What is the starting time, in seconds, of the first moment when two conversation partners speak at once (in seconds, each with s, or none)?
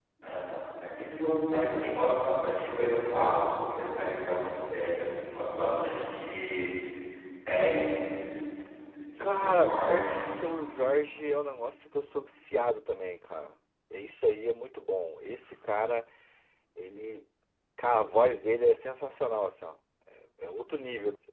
9.2 s